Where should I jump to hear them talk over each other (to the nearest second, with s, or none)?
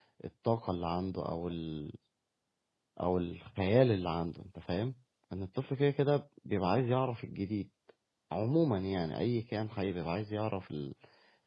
none